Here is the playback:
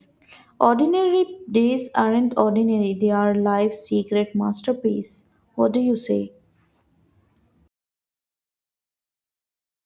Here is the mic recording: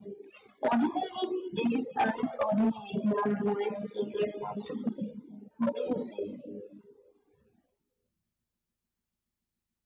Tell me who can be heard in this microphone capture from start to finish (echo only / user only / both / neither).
echo only